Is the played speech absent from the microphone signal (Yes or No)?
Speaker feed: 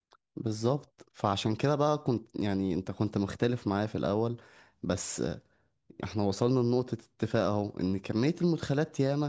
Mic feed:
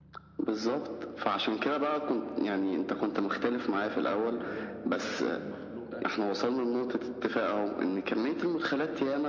No